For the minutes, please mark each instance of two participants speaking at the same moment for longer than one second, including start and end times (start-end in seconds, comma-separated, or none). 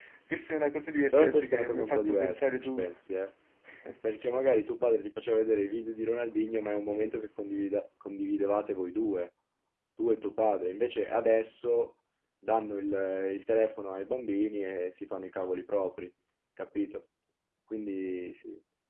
1.1-2.9